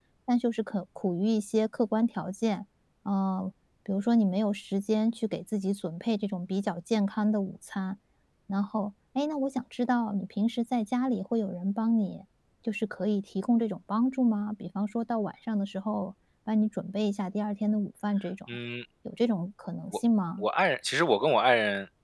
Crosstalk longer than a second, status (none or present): none